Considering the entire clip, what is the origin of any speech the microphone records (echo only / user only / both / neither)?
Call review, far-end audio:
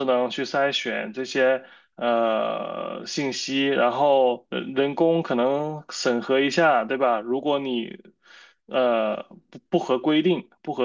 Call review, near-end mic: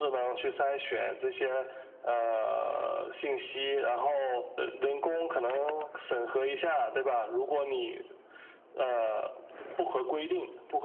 echo only